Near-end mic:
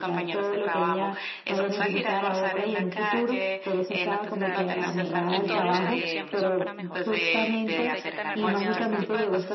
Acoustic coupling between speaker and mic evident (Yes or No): Yes